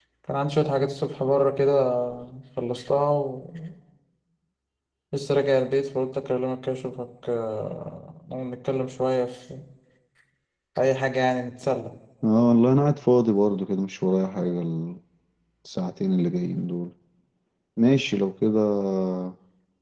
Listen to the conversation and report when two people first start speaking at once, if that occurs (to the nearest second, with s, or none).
none